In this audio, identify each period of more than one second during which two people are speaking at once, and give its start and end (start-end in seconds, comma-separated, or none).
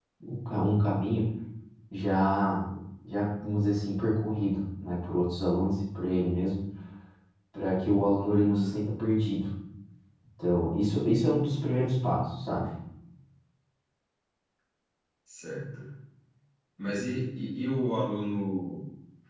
none